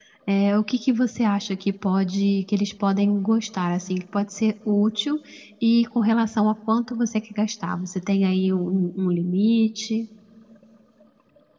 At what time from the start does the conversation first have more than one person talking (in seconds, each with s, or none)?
none